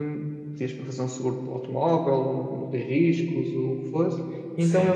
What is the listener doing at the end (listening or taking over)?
listening